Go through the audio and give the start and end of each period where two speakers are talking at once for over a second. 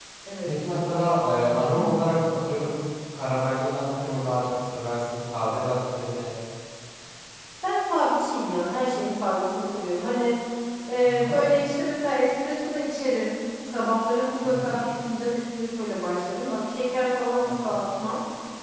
none

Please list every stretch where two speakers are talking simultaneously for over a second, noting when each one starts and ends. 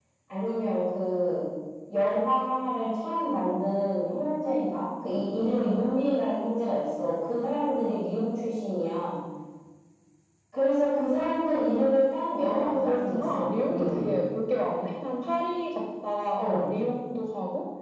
12.6-14.1

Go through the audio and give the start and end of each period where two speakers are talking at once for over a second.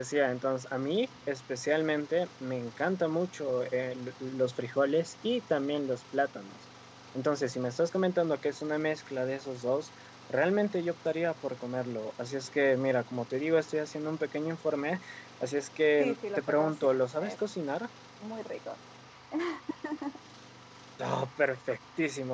16.0-17.4

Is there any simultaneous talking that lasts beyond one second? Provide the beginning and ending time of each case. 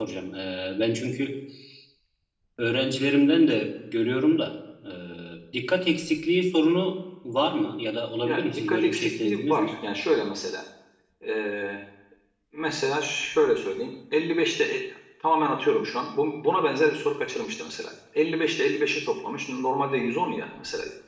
8.2-9.7

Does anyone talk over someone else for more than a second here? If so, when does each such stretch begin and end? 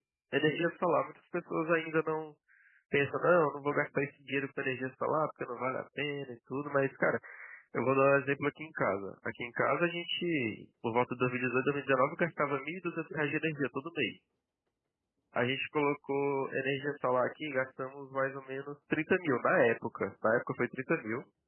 none

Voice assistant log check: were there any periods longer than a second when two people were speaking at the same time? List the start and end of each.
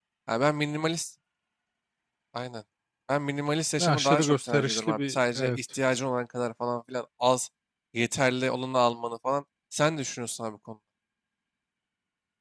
3.8-5.6

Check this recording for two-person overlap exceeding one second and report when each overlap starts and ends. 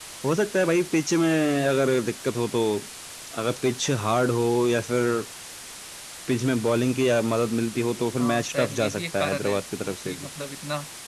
8.2-10.3

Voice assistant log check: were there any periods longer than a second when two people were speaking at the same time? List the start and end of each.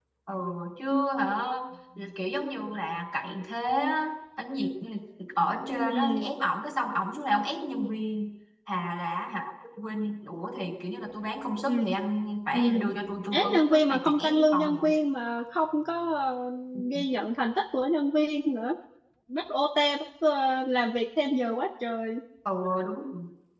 13.3-14.8

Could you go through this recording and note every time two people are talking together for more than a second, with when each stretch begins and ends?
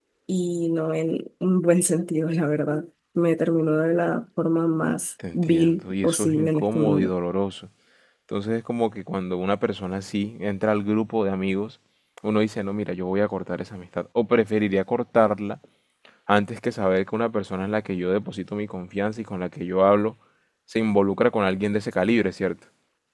5.3-7.1

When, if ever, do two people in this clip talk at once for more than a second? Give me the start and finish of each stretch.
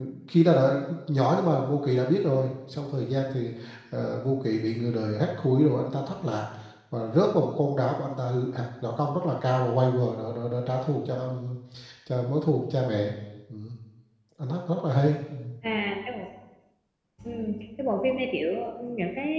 none

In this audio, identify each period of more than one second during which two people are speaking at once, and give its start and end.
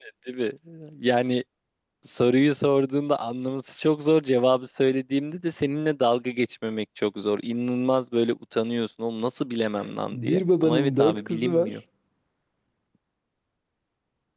10.1-11.7

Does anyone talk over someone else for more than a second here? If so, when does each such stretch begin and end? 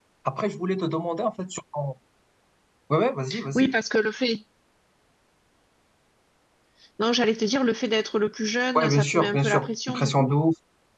8.8-10.3

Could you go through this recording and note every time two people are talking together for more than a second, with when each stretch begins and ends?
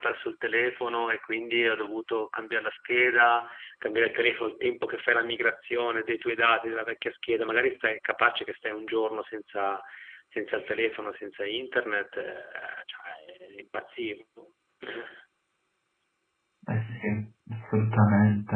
none

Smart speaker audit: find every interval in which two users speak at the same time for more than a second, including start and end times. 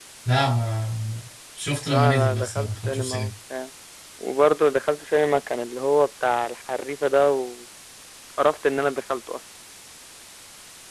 1.9-3.3

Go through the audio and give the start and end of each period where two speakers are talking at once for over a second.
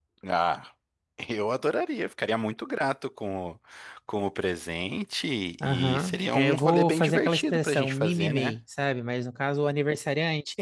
5.6-8.5

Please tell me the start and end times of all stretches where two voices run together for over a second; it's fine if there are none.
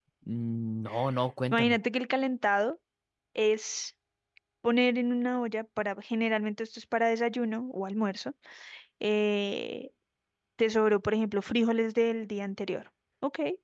none

